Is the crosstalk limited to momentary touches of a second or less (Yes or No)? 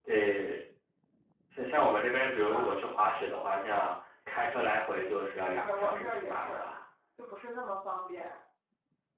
No